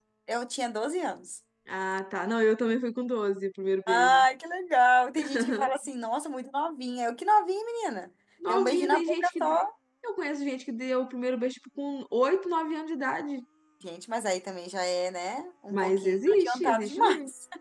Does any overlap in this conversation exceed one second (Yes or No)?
Yes